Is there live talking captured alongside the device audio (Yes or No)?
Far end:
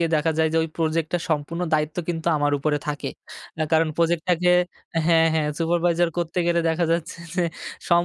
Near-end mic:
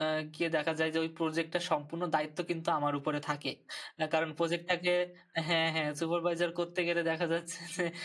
No